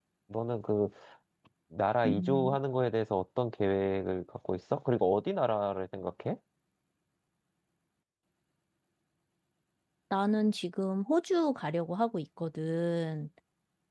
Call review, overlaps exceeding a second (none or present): none